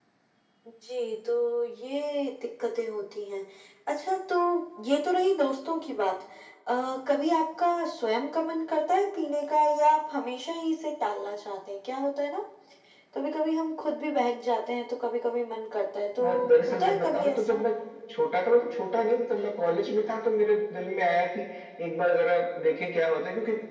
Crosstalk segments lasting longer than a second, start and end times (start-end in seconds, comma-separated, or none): 16.2-17.6